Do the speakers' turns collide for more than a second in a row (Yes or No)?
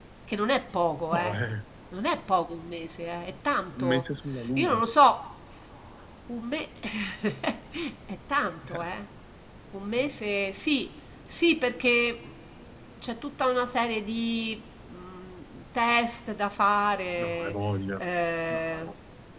No